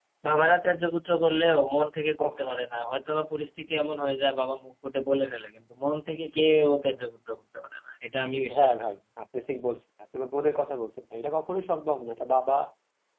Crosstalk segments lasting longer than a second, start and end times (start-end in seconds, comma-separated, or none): none